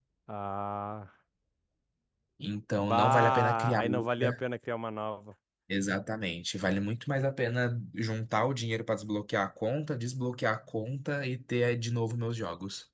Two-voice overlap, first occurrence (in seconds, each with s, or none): 2.8 s